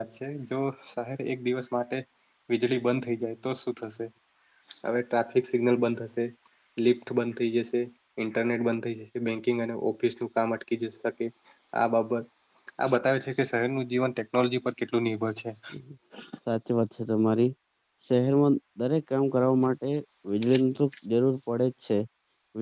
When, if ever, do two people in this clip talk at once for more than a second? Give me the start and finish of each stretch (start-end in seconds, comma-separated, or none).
none